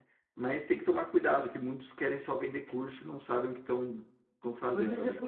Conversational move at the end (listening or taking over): taking over